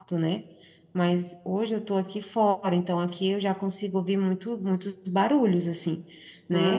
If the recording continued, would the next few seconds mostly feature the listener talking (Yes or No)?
No